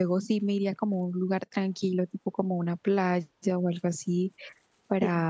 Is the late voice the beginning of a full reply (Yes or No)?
No